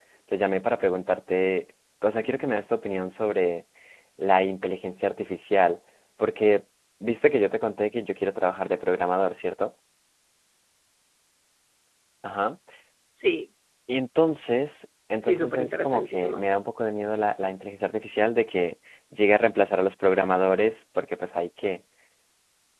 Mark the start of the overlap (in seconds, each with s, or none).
15.2 s